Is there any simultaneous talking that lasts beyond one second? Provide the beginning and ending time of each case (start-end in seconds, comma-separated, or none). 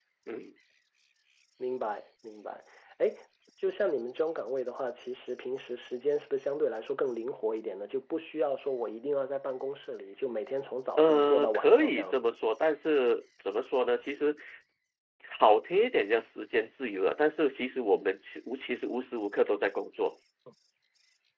11.0-12.3